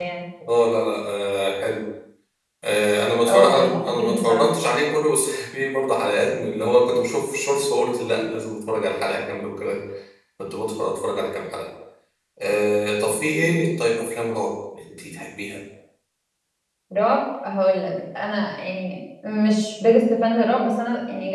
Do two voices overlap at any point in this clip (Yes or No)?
Yes